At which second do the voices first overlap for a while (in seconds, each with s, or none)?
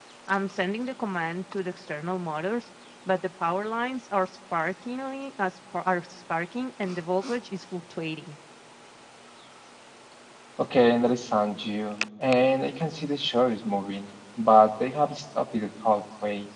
none